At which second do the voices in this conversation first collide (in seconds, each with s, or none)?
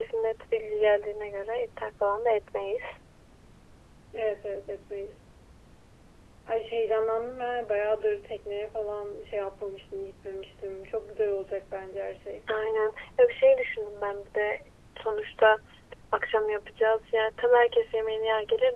none